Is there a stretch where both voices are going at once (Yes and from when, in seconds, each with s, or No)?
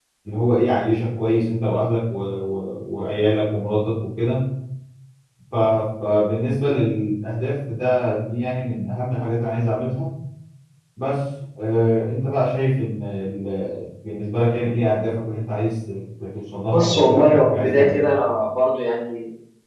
Yes, from 16.7 s